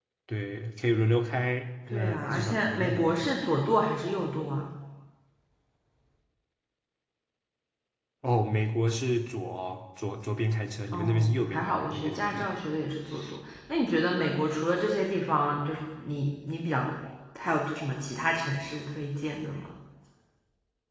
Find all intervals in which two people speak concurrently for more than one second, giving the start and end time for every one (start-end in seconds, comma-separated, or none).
1.9-3.3, 10.9-12.6